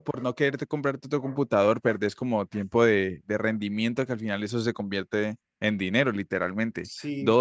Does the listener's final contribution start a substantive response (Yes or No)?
No